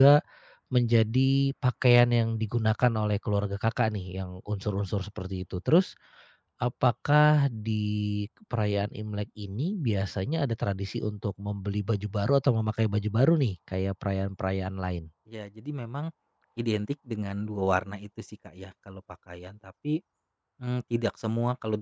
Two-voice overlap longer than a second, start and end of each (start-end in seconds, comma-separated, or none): none